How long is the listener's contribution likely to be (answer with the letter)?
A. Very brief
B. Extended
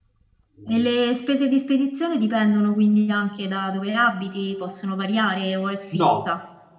B